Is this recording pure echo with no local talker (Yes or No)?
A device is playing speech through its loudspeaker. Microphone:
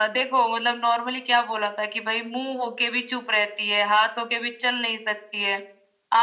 Yes